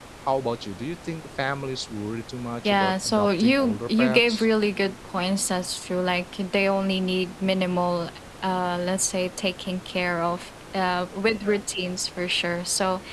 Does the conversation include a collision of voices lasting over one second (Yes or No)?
Yes